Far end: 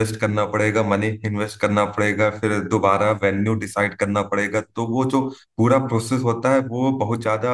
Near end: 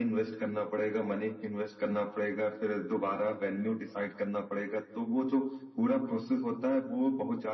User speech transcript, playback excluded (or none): none